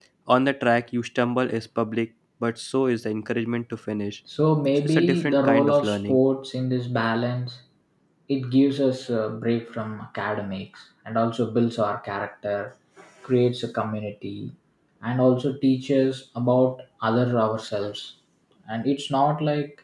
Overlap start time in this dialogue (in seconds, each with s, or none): 4.8 s